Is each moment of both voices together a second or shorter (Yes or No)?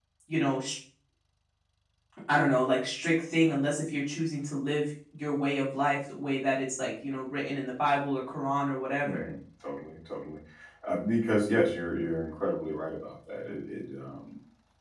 Yes